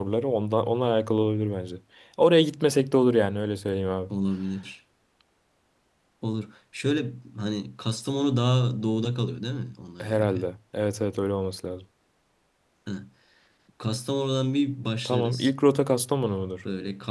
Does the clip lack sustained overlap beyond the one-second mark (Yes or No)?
Yes